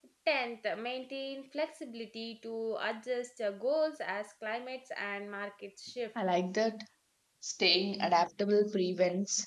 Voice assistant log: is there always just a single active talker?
Yes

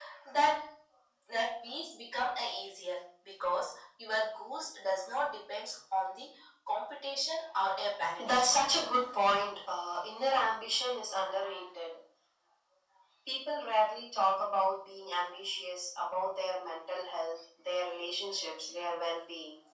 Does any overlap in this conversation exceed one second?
No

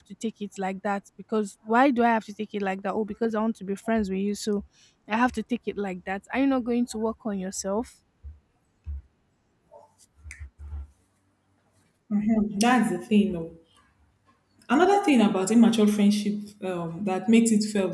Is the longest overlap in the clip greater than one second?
No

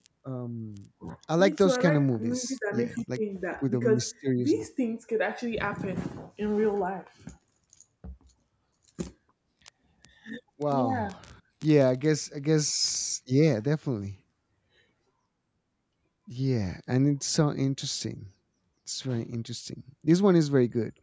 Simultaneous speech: Yes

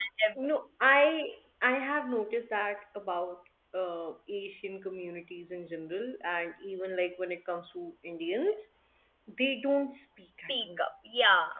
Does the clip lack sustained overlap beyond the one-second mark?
Yes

